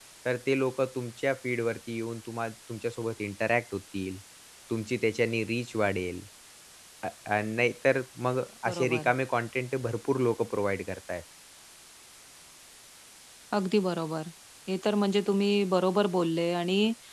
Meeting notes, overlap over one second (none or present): none